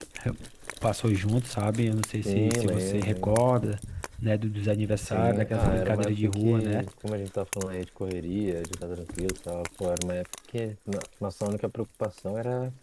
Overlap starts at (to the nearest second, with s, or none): 2 s